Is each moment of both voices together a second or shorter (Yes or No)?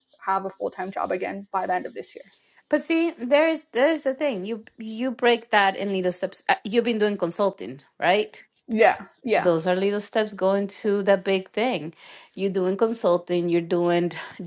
Yes